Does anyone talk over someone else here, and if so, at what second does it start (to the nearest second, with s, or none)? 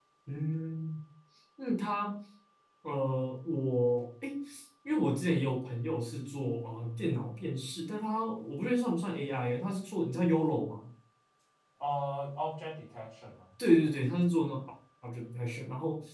none